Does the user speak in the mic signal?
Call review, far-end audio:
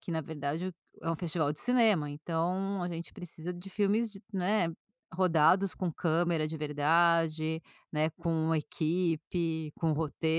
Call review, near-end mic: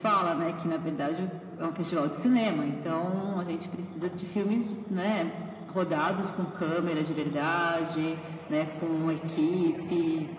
No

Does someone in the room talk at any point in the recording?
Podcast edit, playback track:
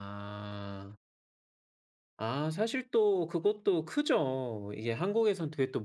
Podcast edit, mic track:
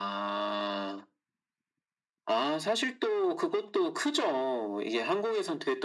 No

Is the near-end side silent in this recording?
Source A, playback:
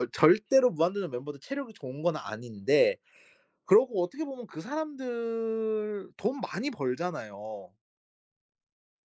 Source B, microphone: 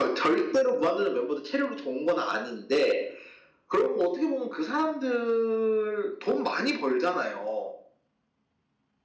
Yes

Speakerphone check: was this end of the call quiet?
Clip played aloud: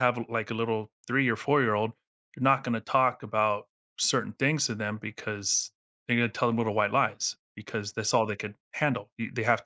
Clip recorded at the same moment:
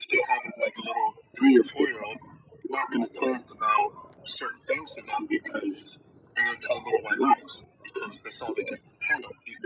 Yes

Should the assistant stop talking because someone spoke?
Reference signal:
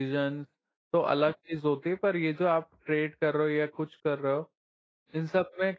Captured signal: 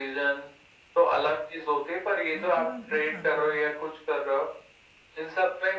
Yes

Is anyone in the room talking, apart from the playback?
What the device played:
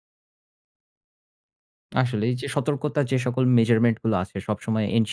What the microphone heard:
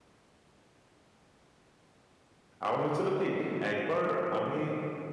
Yes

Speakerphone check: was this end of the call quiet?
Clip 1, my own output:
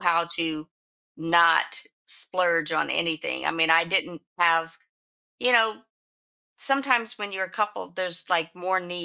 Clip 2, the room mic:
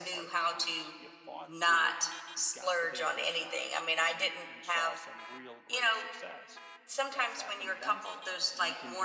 No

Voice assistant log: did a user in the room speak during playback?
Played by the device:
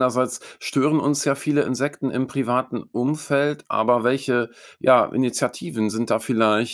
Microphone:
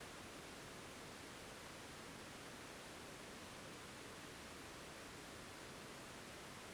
No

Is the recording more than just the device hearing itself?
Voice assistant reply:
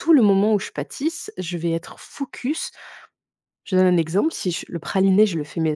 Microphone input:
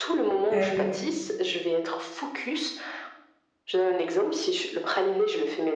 Yes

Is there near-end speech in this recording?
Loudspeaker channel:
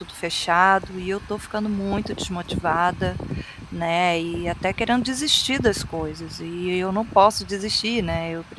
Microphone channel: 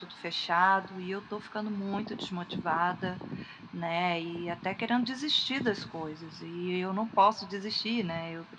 No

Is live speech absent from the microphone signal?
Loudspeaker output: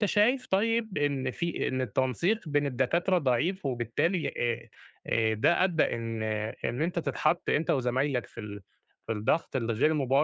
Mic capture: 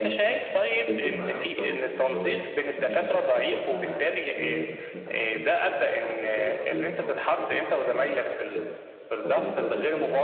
No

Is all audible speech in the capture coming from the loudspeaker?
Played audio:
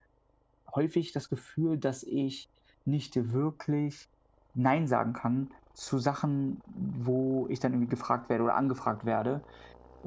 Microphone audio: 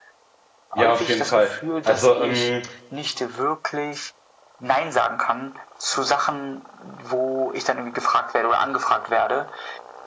No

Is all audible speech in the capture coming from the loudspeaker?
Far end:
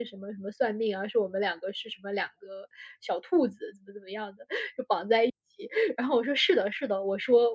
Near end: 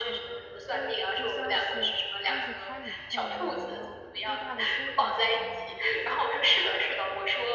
No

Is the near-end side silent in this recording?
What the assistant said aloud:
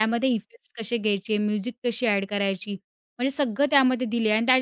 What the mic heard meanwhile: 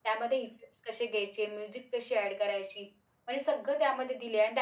Yes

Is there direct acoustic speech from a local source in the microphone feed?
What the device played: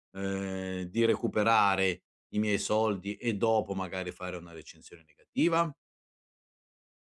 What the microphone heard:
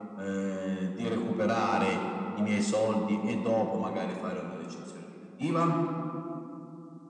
No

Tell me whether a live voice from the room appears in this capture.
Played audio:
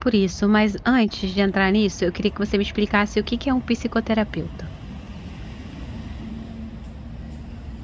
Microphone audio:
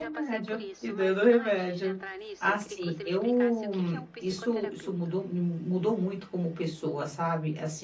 Yes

